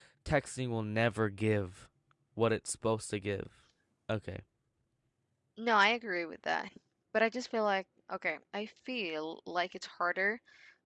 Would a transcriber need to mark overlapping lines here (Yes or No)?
No